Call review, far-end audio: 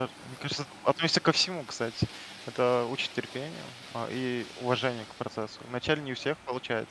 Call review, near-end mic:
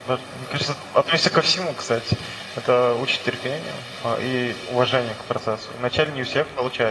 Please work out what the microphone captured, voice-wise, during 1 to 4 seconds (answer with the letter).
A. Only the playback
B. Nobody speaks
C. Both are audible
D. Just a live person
A